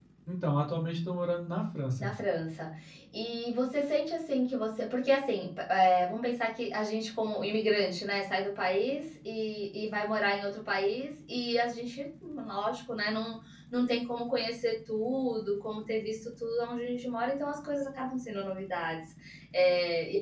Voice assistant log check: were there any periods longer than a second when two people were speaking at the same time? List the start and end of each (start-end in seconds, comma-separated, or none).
none